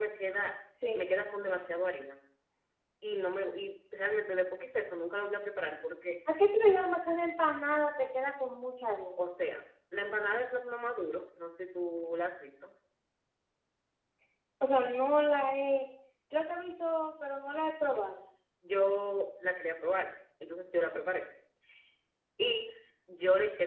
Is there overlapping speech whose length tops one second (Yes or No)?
No